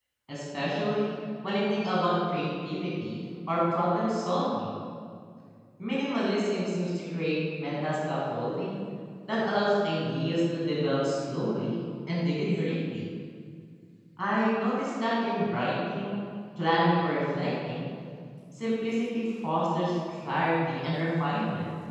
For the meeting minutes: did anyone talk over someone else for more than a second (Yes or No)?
No